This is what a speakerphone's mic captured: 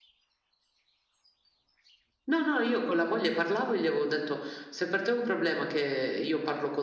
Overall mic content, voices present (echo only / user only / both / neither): echo only